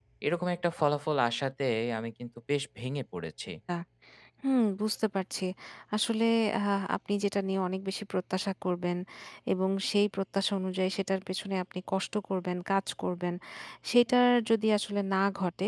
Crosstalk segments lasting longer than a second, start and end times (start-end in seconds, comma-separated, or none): none